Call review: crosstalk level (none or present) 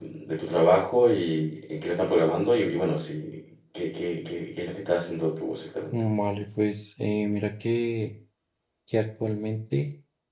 none